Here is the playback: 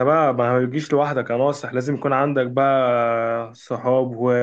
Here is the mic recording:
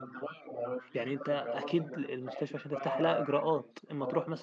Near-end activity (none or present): present